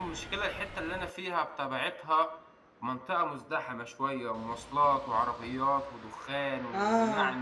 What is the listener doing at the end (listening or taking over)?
taking over